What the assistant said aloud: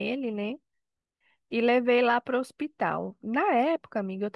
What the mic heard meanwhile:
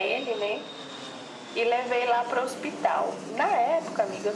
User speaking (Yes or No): No